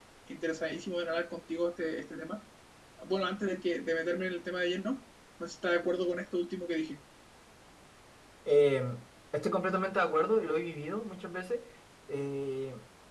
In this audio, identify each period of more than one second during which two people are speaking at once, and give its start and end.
none

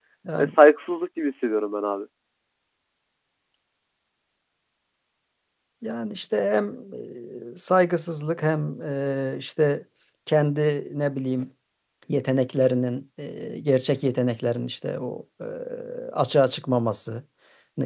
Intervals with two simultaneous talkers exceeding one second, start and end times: none

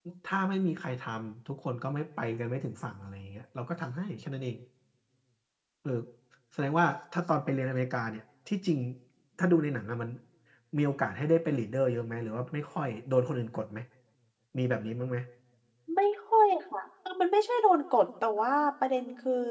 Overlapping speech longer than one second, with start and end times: none

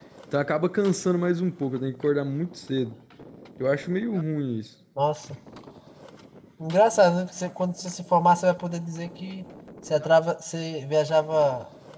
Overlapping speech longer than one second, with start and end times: none

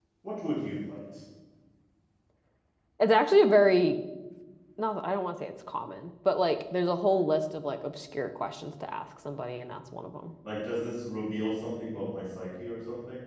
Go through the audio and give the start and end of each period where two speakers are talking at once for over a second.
none

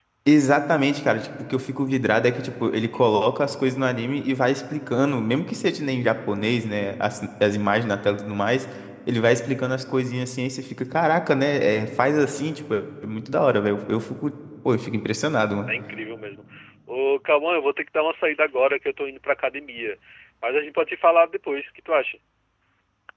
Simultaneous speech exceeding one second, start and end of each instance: none

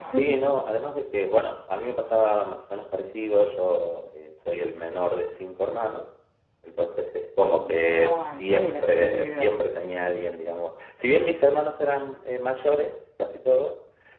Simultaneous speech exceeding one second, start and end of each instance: 7.4-9.5

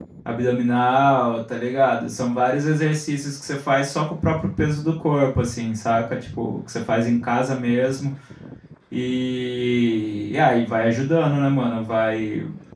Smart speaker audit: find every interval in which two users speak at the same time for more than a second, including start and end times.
none

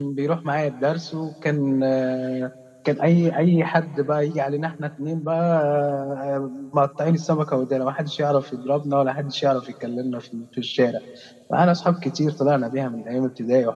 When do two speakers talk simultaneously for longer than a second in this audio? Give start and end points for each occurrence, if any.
none

